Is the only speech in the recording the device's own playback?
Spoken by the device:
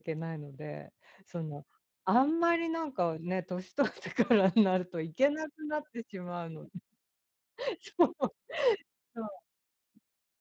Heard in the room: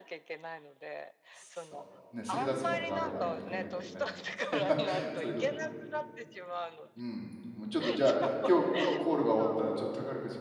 No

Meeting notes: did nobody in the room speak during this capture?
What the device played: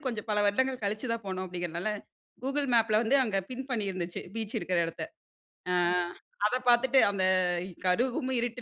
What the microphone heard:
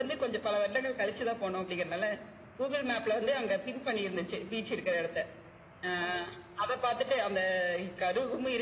Yes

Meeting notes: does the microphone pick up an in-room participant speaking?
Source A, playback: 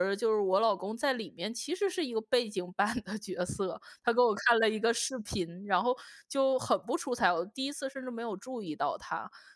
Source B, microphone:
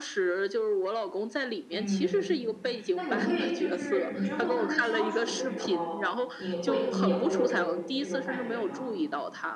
Yes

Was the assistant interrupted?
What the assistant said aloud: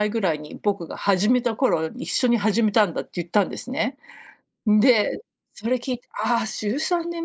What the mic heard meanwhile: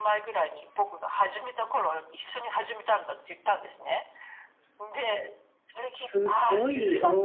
Yes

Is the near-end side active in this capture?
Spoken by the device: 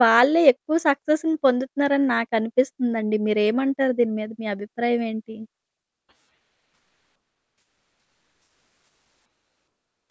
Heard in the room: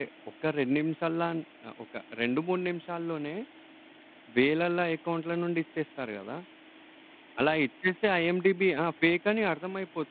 Yes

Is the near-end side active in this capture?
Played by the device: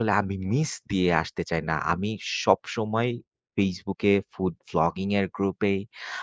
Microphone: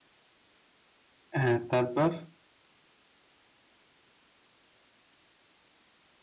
Yes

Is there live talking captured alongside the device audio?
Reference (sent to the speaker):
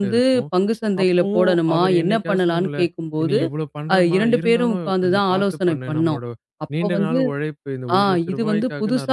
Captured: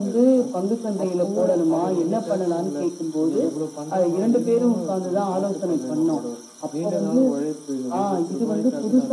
No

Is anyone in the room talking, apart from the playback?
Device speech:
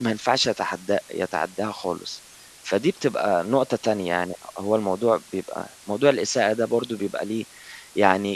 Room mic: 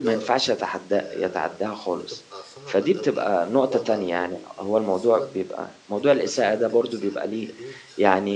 Yes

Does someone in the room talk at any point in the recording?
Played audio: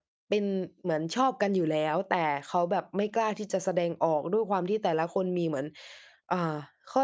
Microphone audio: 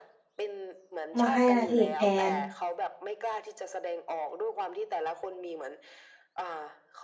Yes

